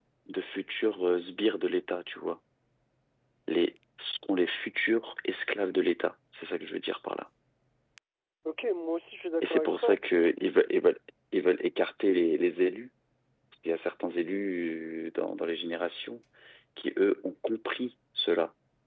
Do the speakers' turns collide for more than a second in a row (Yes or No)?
No